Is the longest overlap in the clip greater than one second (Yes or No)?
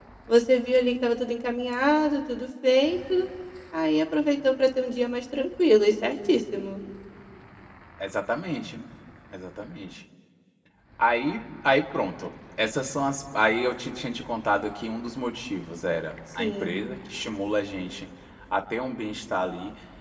No